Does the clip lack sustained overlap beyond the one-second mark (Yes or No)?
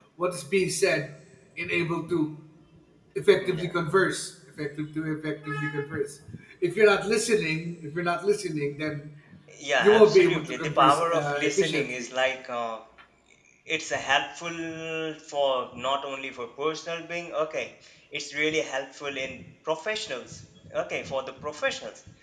No